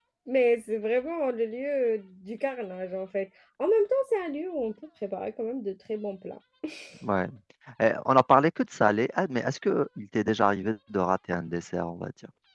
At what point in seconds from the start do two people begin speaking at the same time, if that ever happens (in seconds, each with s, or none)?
none